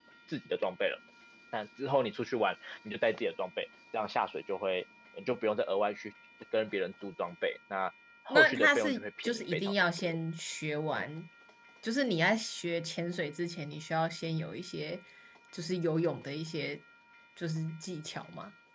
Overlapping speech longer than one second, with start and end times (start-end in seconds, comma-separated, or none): 8.3-10.2